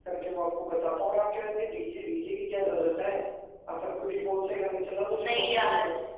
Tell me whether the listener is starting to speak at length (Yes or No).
Yes